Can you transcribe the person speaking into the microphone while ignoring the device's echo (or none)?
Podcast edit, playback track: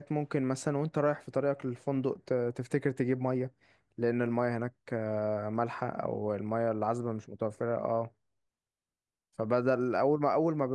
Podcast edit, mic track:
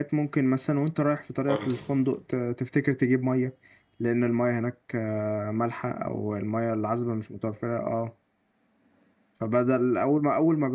قول لي